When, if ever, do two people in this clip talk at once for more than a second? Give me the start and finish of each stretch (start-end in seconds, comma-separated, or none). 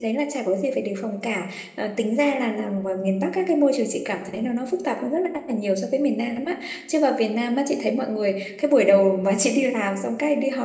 none